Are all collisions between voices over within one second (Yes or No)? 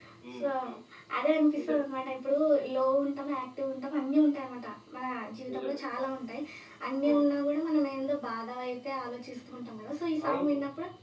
Yes